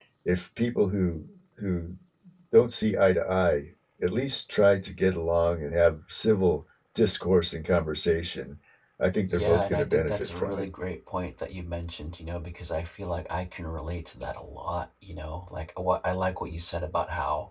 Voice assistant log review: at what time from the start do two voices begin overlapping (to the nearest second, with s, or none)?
9 s